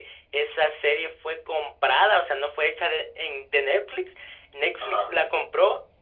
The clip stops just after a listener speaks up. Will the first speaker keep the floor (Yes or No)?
Yes